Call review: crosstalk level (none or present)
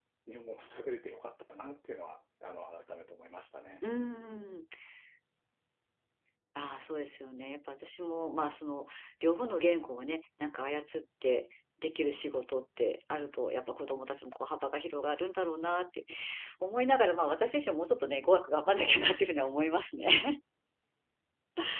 none